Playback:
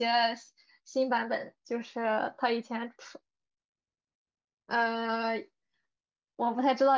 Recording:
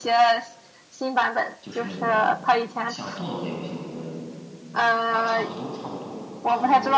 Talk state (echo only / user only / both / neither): both